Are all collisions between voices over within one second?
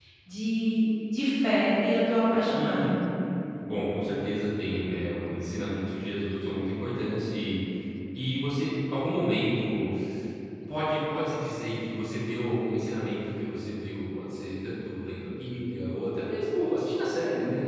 Yes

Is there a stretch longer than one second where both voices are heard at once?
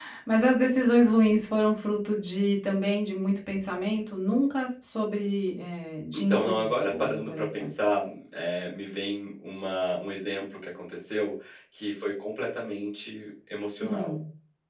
Yes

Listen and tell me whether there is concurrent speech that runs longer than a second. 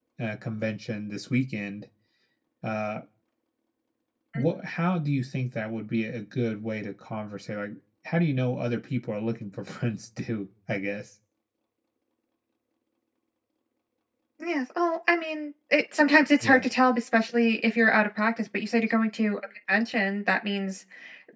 No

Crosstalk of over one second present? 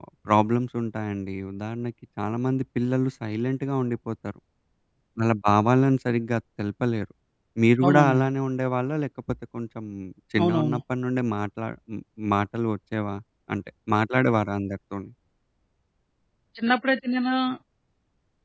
No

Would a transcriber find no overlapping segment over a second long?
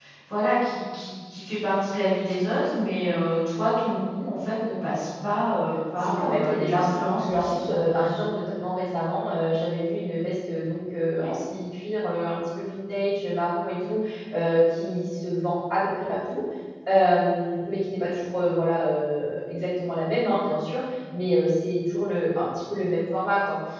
No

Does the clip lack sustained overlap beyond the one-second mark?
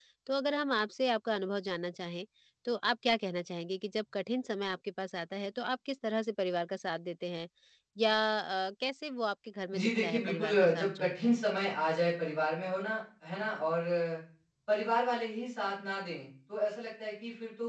No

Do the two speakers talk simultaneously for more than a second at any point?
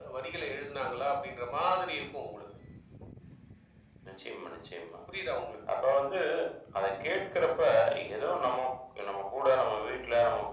No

